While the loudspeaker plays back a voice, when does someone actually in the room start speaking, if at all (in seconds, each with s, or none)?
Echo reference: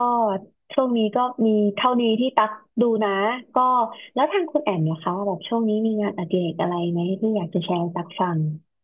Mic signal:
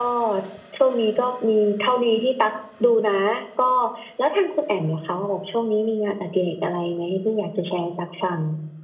none